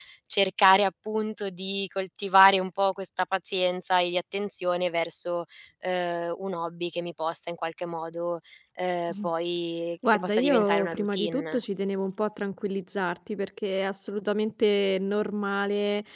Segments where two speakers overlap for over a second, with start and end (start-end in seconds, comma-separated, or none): 10.1-11.6